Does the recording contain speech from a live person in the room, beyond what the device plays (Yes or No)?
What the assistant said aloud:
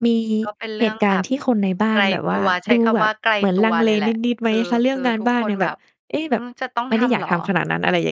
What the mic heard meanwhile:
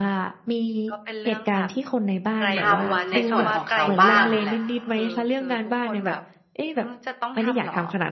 Yes